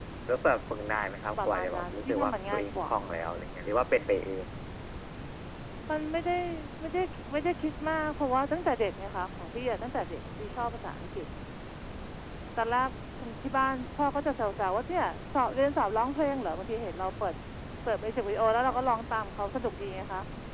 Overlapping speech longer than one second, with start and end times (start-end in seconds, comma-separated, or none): 1.4-2.9